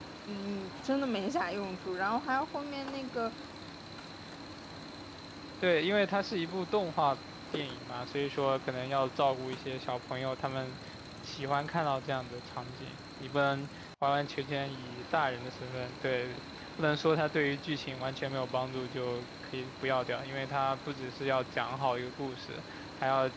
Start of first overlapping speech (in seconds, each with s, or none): none